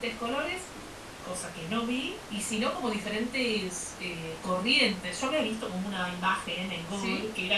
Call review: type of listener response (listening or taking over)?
listening